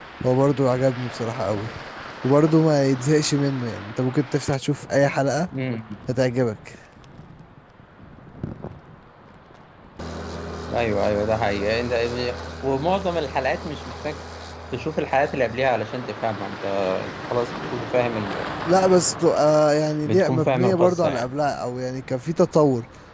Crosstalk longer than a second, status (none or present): present